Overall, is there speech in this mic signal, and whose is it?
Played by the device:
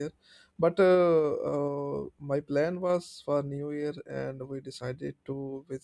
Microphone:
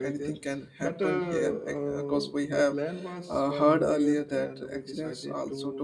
both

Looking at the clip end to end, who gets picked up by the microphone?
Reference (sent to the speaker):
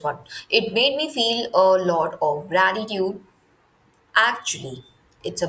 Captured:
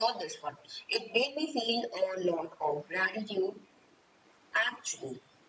echo only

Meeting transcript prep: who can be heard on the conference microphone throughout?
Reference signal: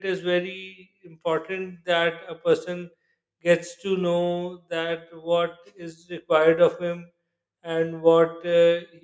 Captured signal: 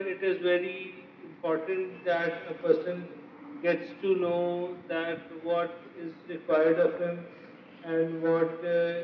echo only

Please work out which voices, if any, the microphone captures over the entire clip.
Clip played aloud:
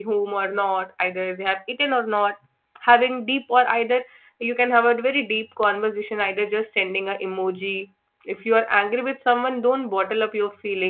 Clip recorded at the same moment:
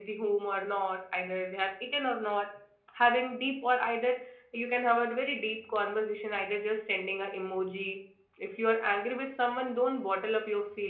echo only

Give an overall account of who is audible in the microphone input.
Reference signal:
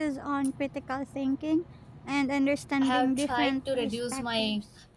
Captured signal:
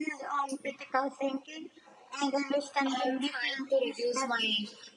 echo only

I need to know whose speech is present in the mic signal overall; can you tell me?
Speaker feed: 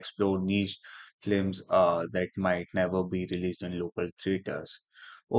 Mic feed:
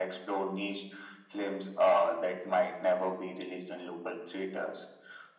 echo only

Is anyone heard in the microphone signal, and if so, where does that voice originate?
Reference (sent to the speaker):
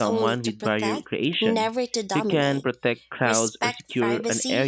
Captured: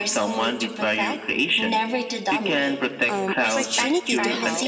both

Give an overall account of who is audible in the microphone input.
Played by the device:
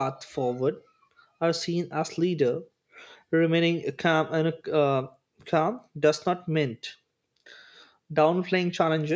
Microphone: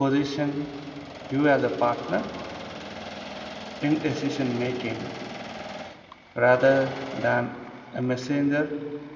user only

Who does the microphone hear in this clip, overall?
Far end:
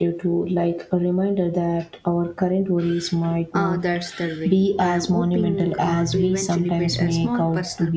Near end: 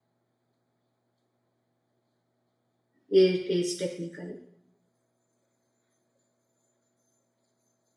user only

